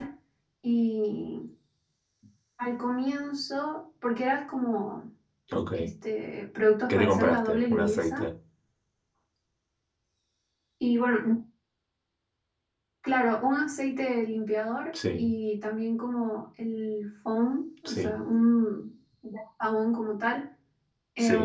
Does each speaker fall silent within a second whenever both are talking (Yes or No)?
No